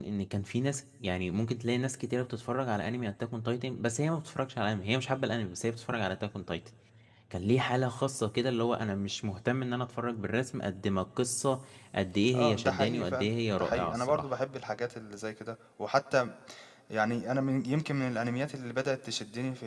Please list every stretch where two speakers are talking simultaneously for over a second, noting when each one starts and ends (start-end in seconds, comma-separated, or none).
12.4-14.3